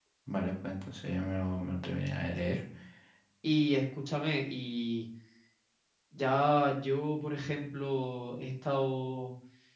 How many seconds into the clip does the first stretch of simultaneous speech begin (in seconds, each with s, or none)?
none